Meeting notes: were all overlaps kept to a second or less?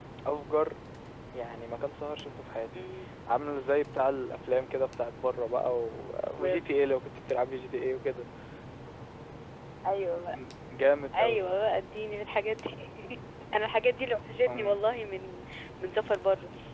Yes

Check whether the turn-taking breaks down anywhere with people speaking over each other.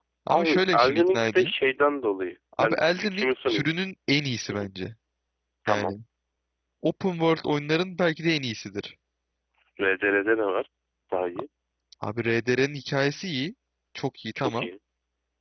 Yes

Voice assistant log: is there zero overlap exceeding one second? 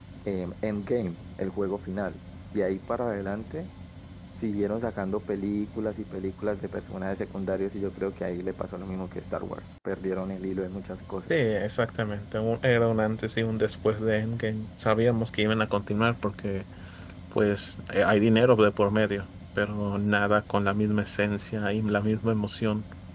Yes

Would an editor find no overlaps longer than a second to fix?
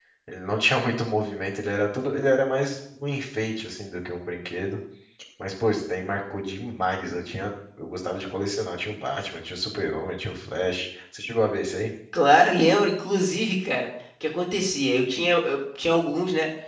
Yes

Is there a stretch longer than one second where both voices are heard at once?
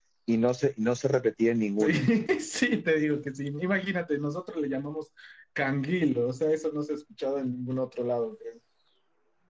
No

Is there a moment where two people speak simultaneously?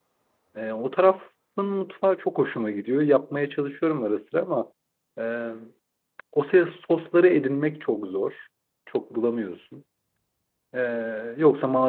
No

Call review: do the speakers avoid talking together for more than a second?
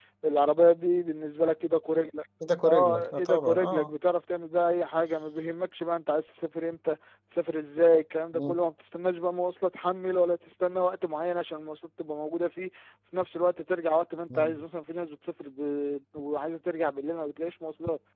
No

